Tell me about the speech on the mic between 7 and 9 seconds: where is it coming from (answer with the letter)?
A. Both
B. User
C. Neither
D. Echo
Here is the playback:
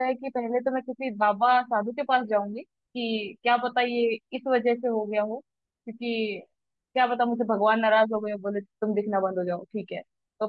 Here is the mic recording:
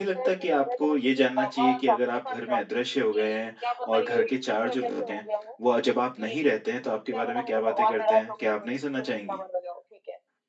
A